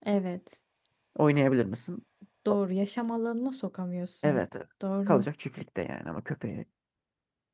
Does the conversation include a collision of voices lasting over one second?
No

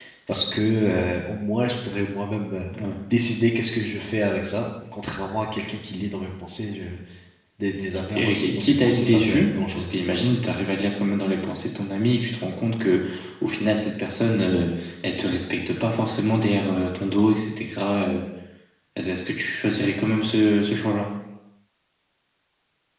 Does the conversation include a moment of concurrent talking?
Yes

